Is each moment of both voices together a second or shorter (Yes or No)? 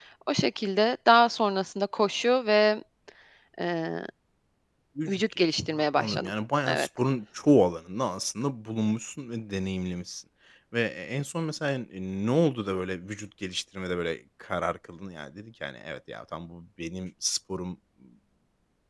No